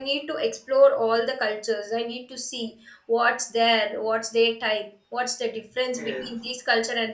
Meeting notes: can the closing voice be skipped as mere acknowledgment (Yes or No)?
Yes